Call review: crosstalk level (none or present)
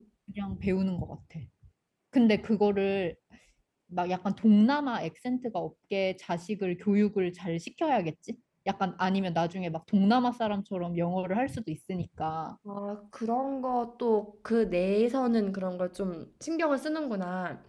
none